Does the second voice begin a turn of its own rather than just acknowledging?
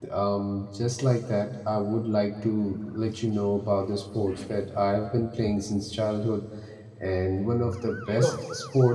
No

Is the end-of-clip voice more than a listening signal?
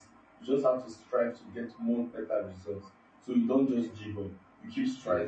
Yes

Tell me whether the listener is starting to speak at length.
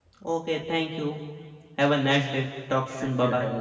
Yes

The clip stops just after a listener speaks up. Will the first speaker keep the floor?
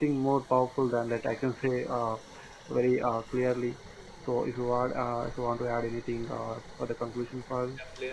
No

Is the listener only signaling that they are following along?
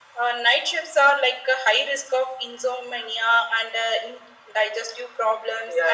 No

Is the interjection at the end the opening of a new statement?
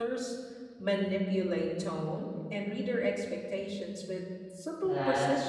Yes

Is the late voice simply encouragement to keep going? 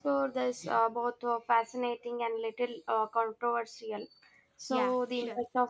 Yes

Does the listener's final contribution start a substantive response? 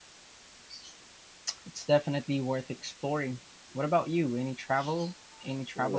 Yes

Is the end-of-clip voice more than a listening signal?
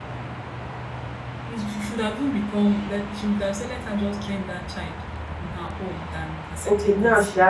Yes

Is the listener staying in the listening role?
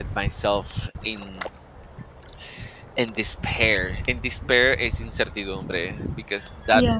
Yes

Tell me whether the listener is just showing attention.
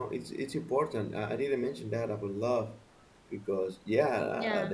Yes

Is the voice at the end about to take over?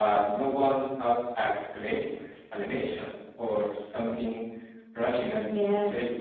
Yes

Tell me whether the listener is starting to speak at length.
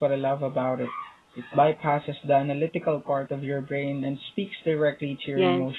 Yes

